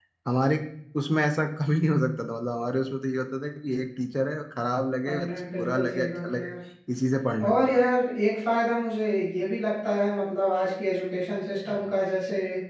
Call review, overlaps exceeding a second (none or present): present